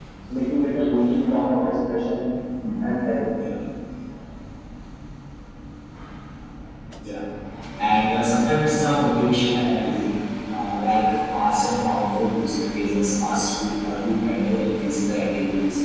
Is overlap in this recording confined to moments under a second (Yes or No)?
Yes